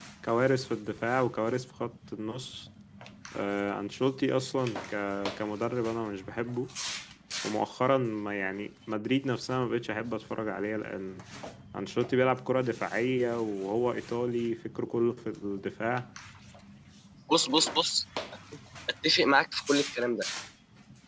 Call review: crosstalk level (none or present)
none